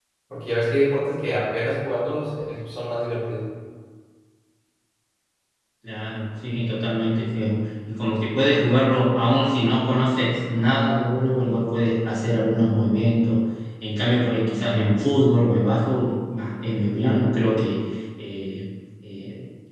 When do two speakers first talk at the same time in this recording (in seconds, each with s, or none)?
none